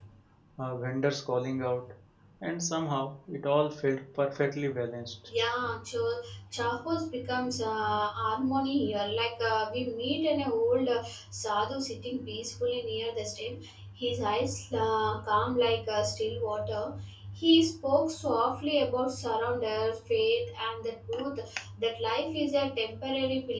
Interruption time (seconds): none

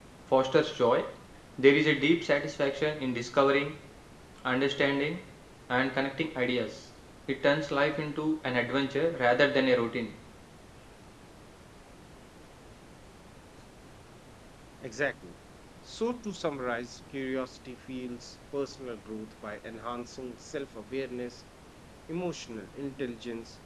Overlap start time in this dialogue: none

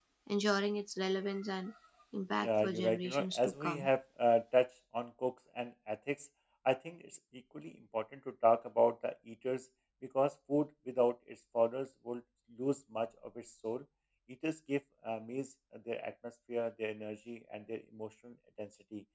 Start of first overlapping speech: 2.4 s

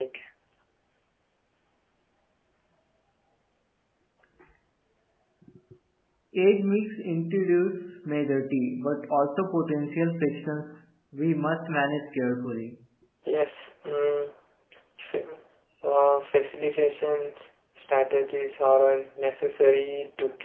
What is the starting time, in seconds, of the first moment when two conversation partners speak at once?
none

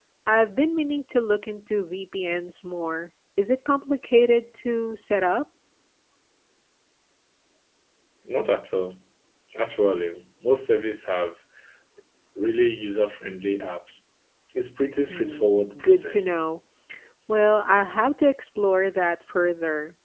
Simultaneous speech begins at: 15.1 s

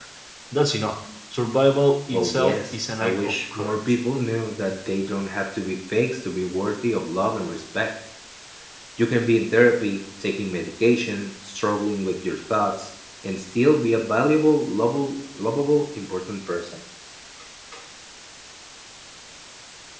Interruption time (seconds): 2.1 s

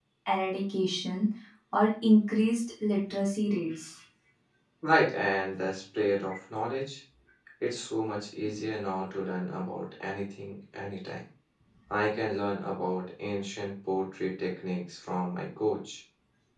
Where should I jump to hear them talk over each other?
none

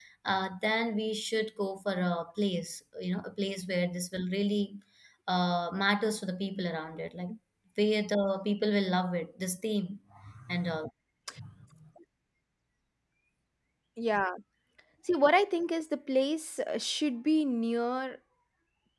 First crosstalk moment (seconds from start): none

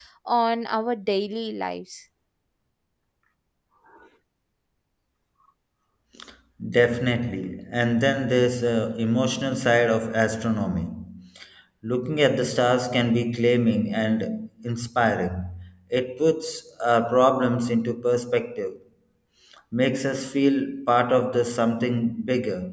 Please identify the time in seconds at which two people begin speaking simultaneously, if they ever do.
none

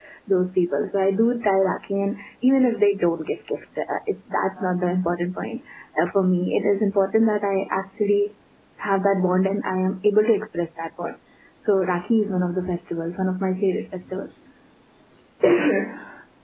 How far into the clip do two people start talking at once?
none

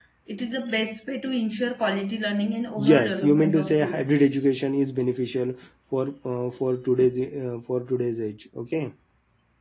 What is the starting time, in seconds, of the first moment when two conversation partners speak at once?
2.8 s

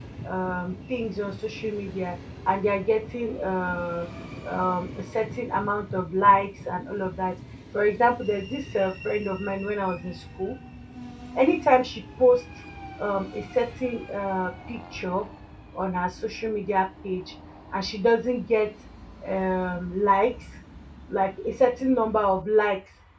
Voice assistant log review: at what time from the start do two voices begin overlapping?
none

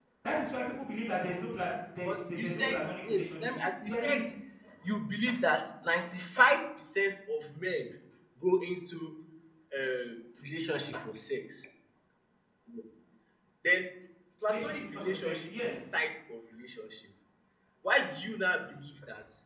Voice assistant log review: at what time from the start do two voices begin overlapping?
2.0 s

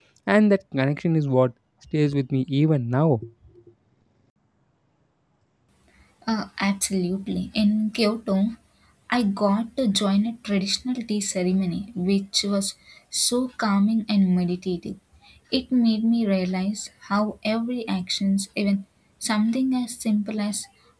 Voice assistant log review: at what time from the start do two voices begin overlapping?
none

